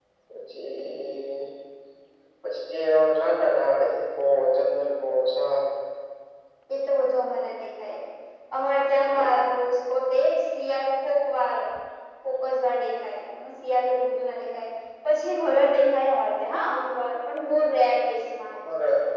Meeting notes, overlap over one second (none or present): none